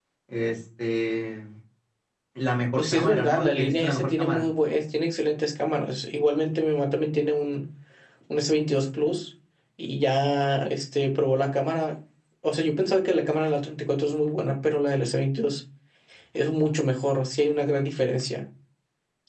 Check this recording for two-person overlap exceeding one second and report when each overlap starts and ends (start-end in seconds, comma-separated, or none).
2.8-4.5